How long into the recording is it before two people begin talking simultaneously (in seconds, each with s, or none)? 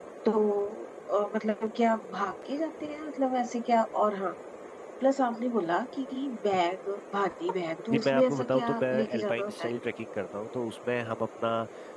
7.9 s